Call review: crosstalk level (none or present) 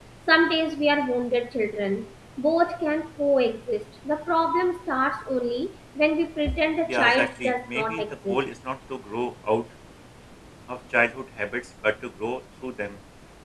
present